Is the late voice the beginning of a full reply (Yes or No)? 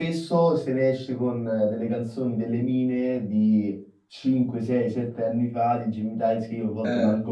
No